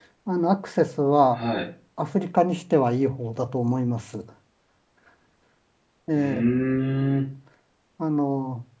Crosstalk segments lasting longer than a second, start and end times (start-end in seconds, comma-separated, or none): none